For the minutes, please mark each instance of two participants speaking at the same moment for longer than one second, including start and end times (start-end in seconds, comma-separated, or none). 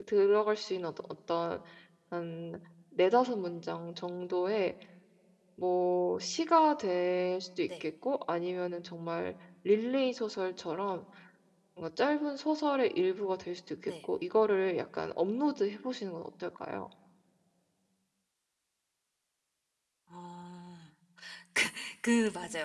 none